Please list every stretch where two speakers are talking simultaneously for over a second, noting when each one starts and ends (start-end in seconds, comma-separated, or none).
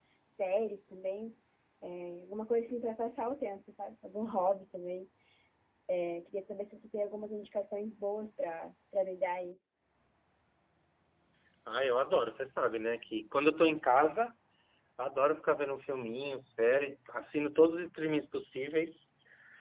none